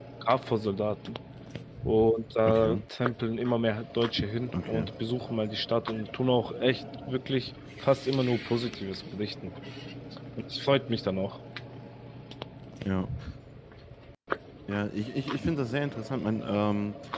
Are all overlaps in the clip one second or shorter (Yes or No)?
Yes